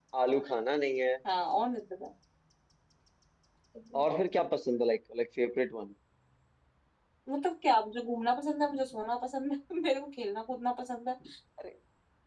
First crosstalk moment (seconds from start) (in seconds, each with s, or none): none